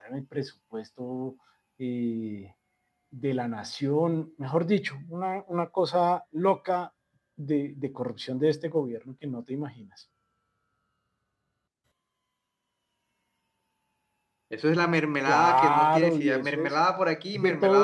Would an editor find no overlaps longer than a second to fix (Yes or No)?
No